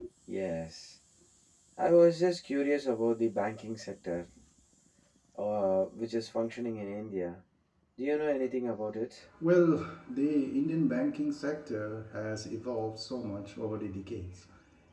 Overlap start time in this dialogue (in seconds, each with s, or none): none